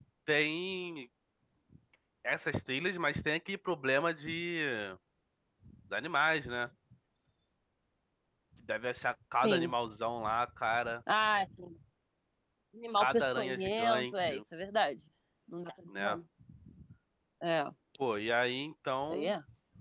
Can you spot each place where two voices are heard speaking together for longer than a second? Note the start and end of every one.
13.0-14.3

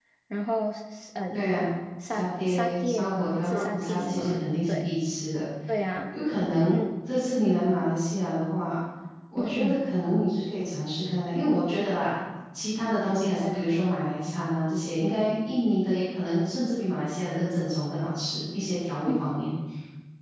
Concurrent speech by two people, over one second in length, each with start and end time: 2.1-4.9

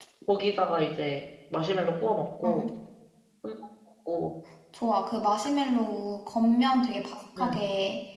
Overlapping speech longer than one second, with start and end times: none

